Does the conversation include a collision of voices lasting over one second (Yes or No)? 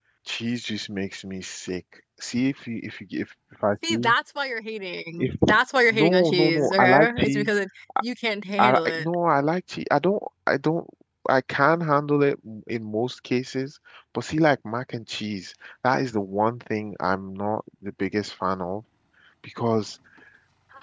Yes